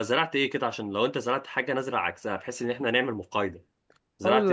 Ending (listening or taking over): taking over